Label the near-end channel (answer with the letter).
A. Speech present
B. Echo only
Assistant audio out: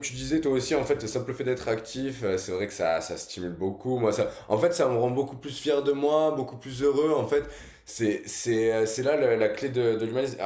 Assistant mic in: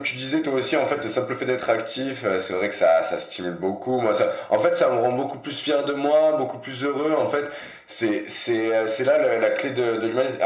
B